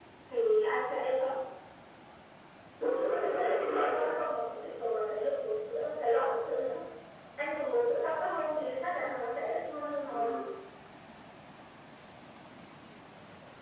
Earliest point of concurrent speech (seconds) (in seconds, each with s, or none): 2.8 s